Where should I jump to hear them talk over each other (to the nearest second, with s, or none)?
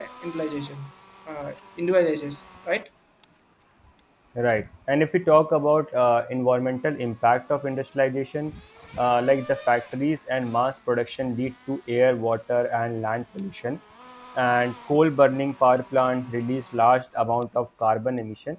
none